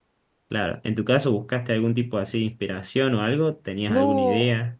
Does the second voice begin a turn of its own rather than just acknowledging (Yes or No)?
Yes